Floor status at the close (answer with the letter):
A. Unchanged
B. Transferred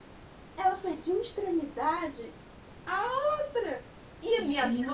A